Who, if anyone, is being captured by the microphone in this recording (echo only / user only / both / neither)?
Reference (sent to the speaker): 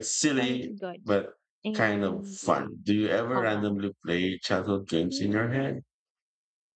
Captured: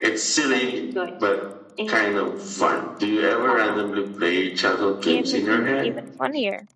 both